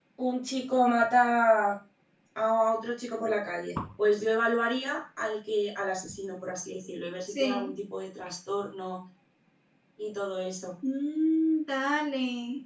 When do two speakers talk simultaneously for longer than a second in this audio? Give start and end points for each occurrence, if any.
none

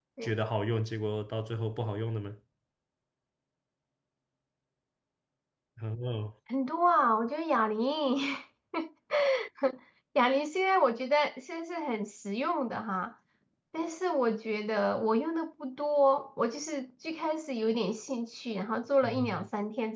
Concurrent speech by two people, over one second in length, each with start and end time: none

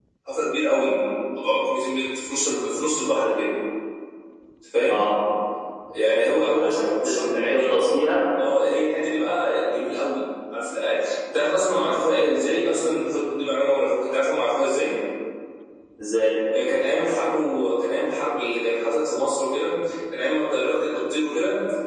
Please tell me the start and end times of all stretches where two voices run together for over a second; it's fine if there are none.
6.2-7.6

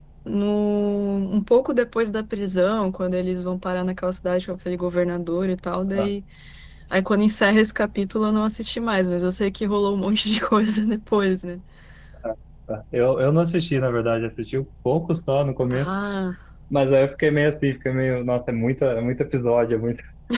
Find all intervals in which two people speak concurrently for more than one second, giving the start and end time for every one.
none

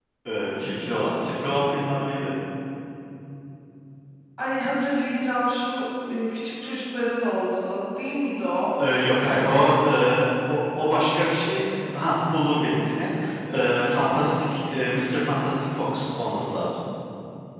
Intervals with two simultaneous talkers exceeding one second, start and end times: none

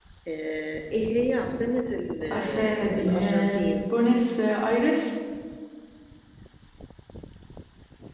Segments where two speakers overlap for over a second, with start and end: 2.3-3.6

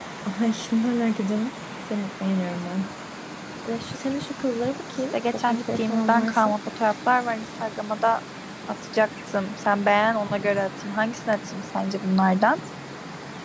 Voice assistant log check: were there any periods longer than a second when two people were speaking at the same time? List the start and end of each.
5.1-6.5

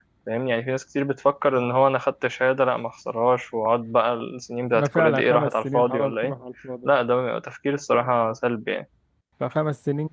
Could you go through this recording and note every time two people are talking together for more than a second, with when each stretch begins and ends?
4.7-6.3

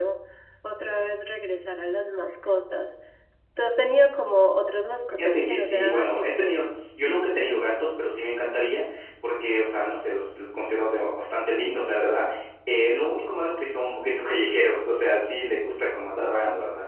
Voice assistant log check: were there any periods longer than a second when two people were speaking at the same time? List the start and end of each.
5.1-6.6

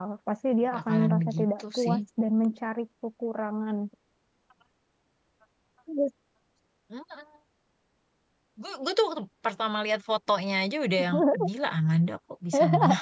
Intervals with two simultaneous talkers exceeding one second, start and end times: 0.7-2.0

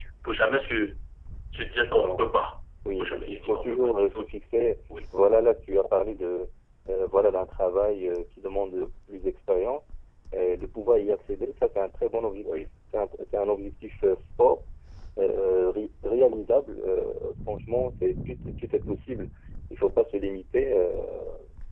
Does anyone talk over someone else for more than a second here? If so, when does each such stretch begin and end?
3.0-4.3

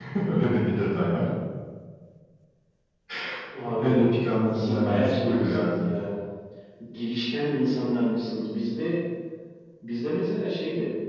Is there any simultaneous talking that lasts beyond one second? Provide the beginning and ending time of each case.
4.5-5.9

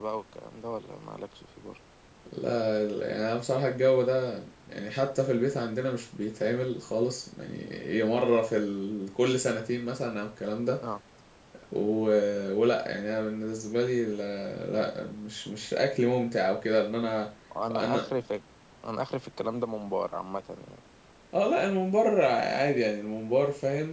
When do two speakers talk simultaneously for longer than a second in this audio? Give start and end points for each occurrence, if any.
none

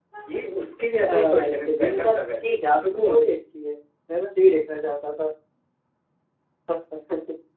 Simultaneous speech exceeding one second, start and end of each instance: 1.0-3.2

